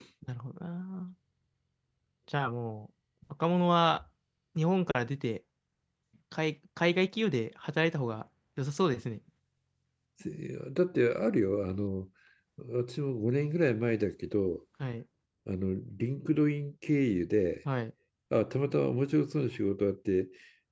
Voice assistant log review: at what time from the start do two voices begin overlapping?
none

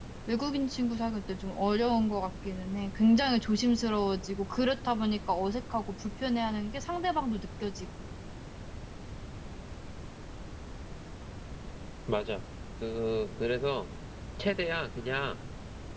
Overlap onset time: none

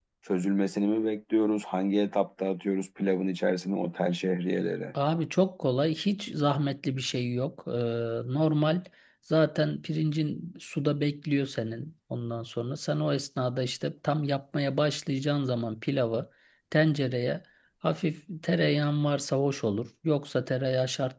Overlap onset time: none

